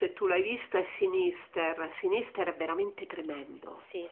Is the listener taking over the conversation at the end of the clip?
Yes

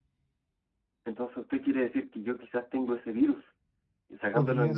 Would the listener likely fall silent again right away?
Yes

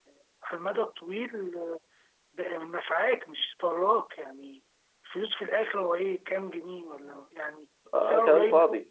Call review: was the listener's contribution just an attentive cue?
No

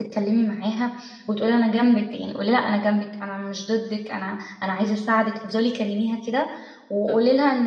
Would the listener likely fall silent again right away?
Yes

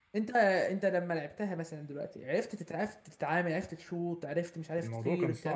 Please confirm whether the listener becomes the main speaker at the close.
Yes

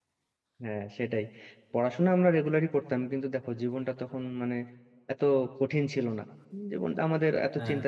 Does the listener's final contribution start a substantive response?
No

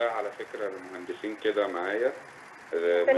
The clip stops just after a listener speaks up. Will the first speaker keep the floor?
Yes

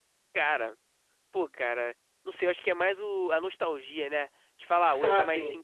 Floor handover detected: No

